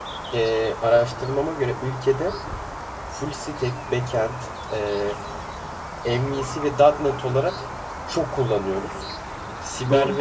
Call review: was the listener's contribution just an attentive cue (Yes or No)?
Yes